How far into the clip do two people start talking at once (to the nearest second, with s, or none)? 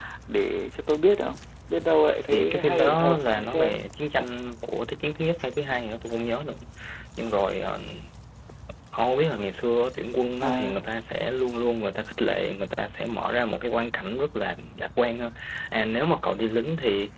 2 s